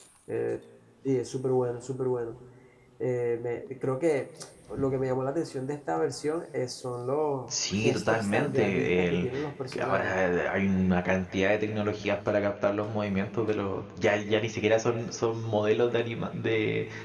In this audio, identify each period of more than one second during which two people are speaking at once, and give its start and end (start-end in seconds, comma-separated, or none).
7.5-9.3